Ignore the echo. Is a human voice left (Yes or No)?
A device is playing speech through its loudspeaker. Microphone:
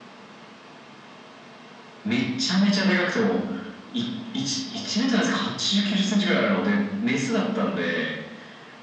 No